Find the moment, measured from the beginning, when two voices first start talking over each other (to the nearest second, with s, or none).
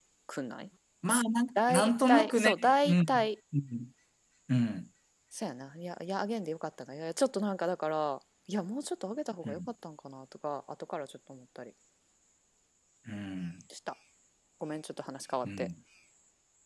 2 s